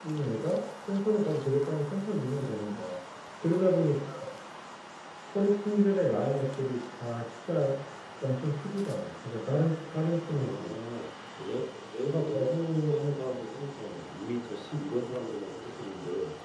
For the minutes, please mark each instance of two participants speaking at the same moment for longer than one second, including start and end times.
none

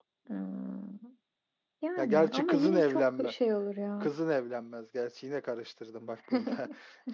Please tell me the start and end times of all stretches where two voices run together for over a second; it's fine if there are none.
2.0-3.3

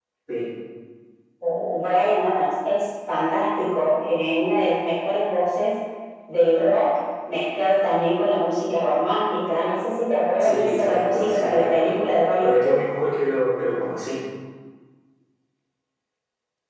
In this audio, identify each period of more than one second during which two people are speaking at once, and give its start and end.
10.4-11.9

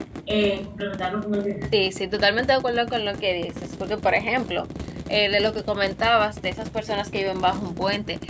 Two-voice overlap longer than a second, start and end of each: none

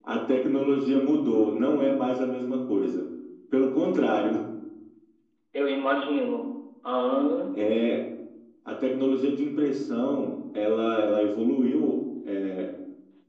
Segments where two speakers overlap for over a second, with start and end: none

